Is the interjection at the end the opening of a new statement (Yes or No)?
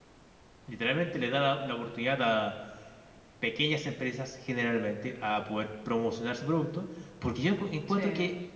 No